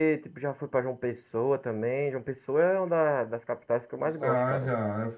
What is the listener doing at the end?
taking over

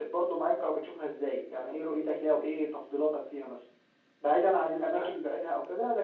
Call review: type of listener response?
listening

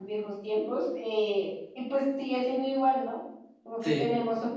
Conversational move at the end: listening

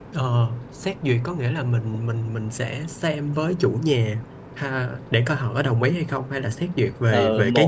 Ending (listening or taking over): taking over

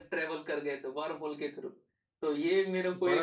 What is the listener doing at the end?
listening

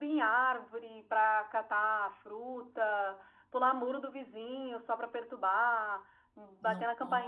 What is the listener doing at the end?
listening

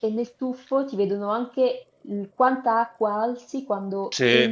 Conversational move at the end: listening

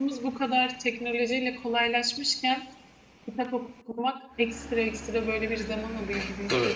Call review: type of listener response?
listening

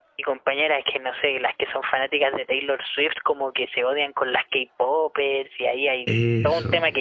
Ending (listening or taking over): listening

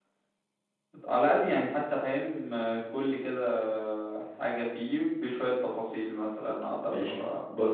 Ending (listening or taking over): taking over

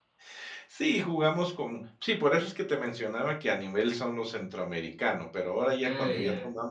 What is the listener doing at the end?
listening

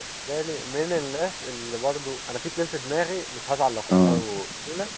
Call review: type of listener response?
listening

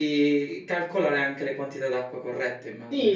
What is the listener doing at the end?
taking over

